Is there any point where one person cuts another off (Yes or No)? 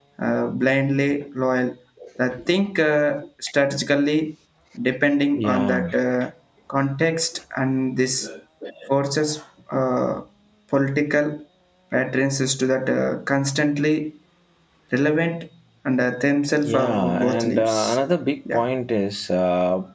Yes